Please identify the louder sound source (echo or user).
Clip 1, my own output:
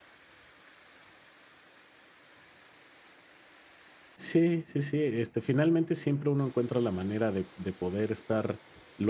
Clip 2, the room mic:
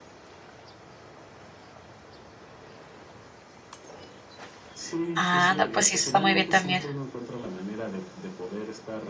user